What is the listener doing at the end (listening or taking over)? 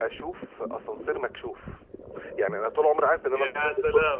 listening